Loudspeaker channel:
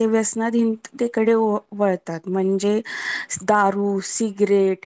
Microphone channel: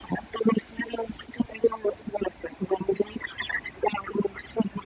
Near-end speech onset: none

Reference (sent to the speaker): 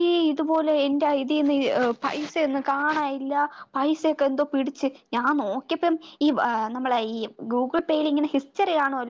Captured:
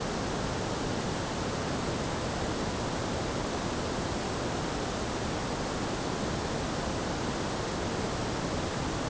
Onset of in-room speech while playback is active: none

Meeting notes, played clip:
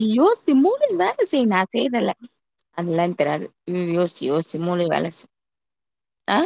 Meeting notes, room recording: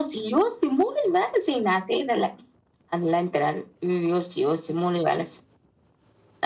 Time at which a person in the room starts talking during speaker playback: none

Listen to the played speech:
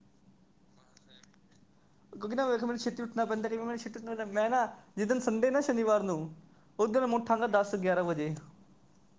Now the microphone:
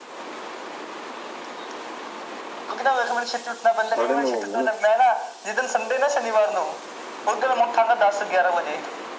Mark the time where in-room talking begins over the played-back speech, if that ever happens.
3.9 s

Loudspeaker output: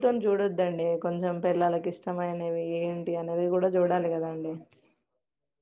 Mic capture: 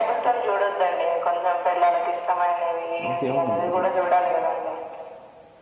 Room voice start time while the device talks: 3.0 s

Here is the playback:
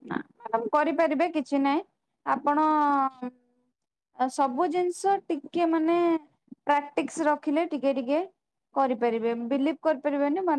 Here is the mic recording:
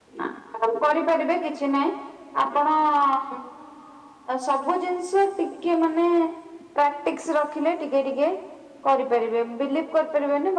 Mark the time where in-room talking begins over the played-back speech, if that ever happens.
none

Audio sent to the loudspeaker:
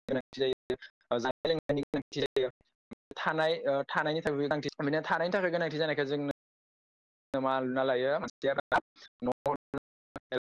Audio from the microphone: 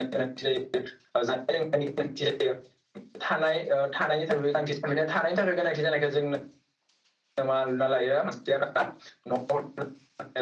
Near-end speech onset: none

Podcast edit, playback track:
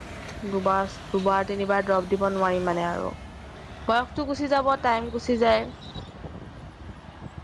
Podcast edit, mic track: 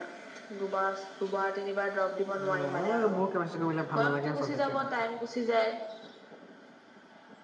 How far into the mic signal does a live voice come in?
2.5 s

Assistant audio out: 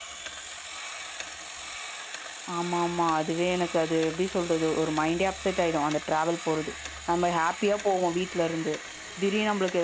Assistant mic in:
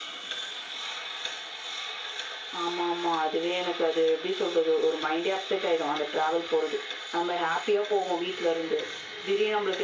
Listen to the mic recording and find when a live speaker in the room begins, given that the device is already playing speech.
none

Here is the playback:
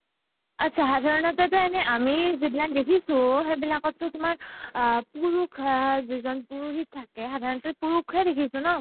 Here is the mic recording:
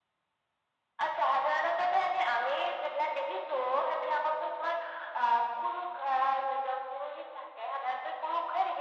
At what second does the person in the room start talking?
none

